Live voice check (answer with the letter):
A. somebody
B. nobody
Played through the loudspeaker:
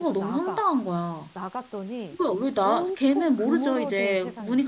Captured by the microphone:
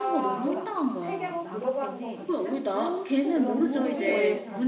A